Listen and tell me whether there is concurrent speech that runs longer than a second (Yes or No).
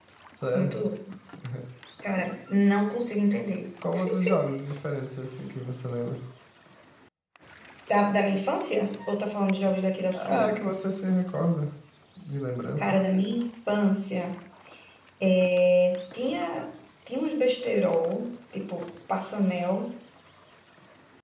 No